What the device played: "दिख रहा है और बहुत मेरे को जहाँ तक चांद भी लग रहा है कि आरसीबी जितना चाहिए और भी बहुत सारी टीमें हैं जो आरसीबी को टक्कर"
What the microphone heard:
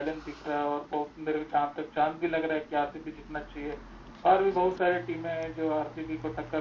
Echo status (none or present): present